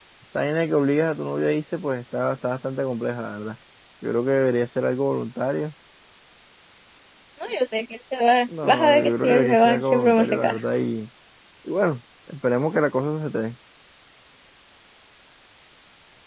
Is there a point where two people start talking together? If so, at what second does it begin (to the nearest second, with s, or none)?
8 s